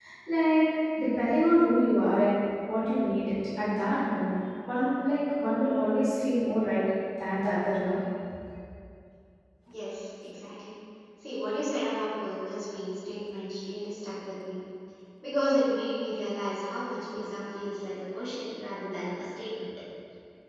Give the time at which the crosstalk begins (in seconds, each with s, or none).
none